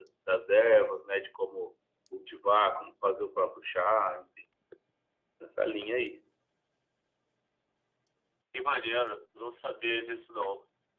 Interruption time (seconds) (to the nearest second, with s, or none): none